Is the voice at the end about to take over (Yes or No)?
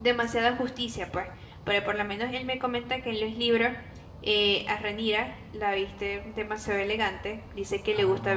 No